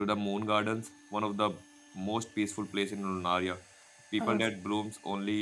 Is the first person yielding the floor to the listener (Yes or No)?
No